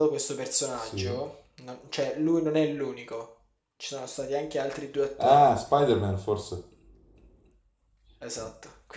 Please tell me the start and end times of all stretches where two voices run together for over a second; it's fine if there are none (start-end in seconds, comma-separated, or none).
none